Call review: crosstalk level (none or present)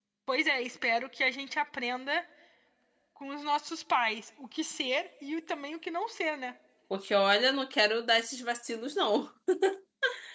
none